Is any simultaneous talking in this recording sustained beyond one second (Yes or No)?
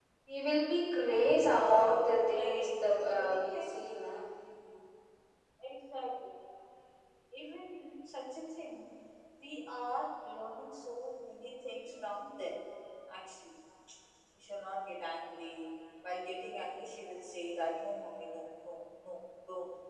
Yes